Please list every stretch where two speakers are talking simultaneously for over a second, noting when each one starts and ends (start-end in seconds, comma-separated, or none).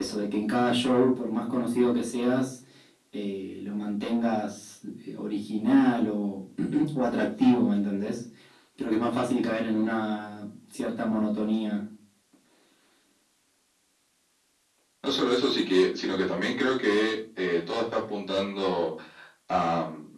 none